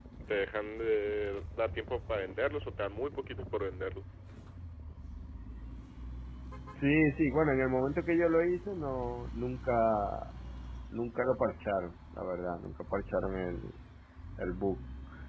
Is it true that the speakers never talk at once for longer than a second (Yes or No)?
Yes